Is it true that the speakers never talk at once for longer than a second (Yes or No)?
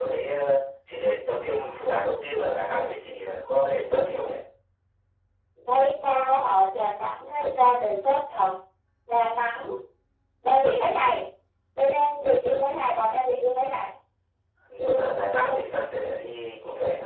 Yes